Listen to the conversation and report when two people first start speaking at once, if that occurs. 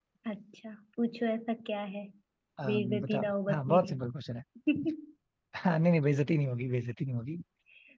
2.7 s

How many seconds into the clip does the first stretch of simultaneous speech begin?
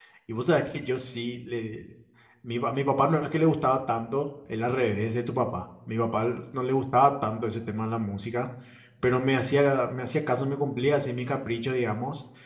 none

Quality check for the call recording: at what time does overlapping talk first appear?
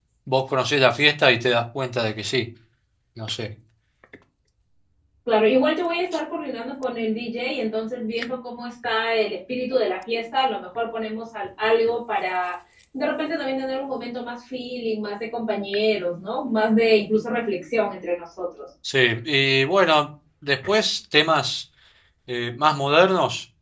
none

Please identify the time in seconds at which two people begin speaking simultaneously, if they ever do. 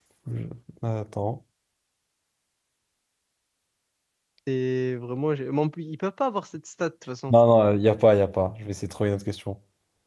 none

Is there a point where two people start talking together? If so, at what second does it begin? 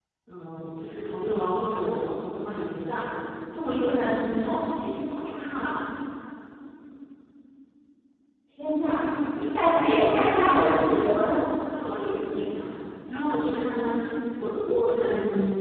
9.7 s

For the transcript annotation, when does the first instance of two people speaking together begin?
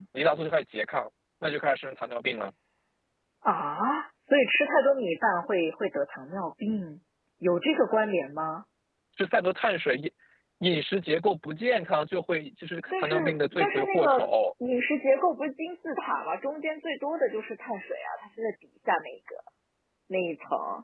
12.9 s

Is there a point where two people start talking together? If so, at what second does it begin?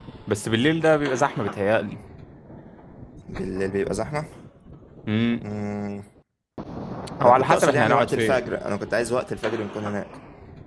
7.2 s

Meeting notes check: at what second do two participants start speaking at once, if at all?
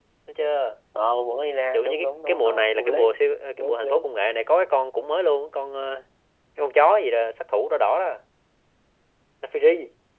1.7 s

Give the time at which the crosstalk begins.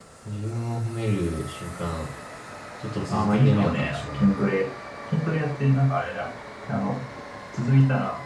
3.1 s

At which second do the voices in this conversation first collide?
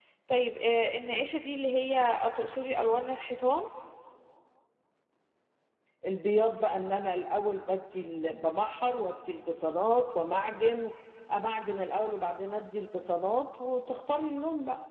none

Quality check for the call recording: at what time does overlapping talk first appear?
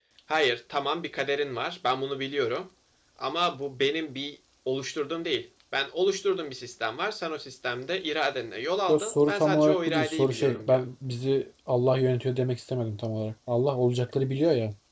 8.9 s

